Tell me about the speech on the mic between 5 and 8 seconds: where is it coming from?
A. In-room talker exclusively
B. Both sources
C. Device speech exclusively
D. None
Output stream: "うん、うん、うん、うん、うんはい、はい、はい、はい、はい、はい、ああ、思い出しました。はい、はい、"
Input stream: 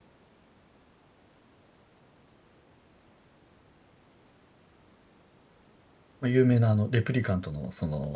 A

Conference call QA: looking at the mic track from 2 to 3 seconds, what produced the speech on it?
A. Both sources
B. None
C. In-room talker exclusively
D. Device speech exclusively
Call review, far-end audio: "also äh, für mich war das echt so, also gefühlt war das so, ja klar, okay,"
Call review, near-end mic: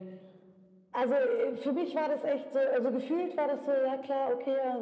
D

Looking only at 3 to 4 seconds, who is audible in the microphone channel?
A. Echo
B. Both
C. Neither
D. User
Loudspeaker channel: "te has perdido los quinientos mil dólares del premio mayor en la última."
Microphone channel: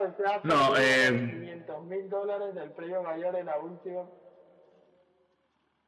A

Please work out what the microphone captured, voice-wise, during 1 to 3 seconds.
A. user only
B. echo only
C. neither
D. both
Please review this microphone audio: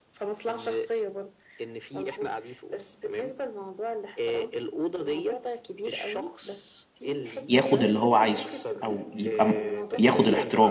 B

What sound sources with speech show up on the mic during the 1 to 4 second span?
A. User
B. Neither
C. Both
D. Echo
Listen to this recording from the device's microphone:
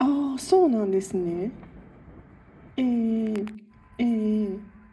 D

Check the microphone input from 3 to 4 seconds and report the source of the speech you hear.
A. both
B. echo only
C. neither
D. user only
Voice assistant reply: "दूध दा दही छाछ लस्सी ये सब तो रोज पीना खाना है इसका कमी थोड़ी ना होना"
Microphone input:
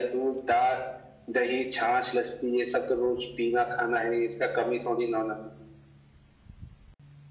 B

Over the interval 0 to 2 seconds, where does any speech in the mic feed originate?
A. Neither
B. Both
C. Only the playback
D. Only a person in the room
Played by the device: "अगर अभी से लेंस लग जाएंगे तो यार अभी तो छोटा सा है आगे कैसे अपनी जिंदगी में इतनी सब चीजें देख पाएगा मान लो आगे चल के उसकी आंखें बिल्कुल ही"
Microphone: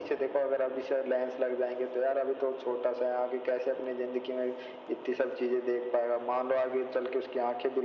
C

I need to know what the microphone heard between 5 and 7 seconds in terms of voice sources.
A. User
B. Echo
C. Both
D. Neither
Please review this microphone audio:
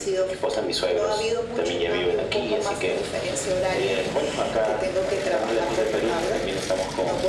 B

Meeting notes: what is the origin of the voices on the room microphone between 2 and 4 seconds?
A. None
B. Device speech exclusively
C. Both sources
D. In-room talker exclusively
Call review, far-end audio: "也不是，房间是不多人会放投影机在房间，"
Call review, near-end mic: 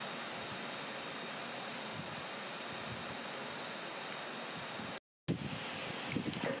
A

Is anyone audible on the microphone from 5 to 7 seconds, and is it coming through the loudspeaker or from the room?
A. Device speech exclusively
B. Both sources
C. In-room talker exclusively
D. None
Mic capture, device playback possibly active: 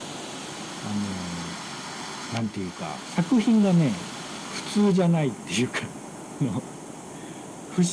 A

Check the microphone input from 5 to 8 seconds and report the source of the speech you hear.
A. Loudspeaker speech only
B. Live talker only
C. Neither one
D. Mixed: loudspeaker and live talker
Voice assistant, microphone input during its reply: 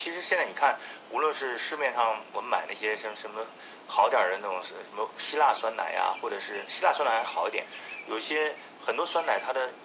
A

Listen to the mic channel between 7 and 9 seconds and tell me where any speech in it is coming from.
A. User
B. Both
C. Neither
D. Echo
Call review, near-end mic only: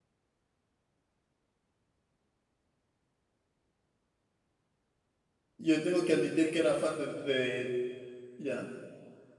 A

